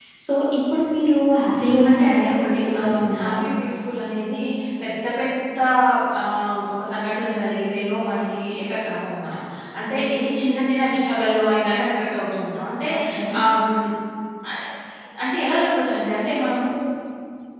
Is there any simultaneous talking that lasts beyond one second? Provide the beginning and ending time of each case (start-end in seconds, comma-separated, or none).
1.9-3.3